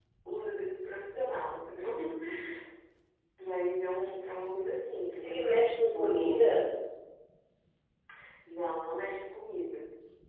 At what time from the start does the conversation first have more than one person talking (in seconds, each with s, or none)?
5.2 s